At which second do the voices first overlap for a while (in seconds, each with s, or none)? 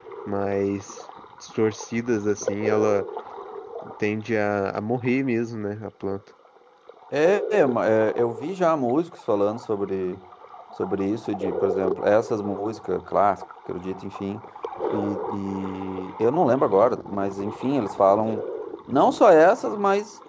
none